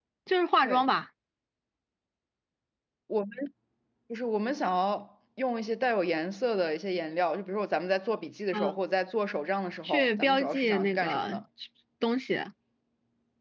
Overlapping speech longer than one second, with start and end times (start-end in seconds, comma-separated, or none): 9.8-11.4